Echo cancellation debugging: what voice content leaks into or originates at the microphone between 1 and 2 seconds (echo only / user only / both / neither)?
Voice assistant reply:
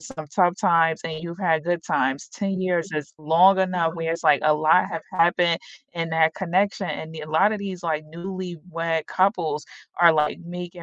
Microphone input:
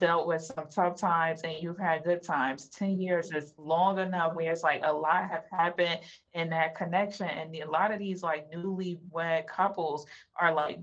echo only